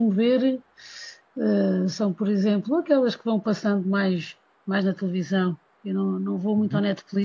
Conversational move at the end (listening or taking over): listening